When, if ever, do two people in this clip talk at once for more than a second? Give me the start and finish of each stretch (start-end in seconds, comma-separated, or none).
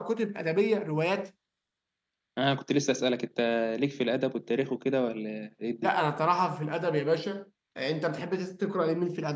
none